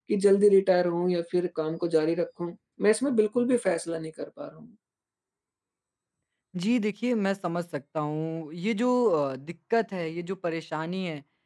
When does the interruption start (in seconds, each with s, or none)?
none